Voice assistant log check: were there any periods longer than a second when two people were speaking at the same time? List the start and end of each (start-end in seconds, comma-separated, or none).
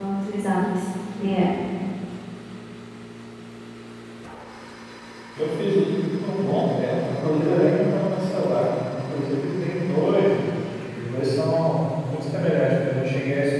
none